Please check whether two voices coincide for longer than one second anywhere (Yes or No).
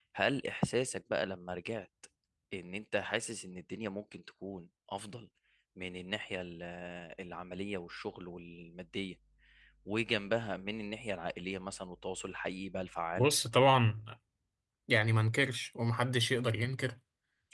No